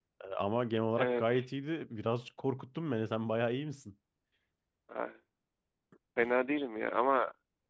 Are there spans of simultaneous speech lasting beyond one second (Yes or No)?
No